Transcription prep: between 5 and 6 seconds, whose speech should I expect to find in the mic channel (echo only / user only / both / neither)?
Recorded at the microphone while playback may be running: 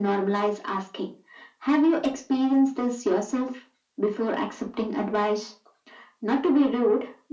echo only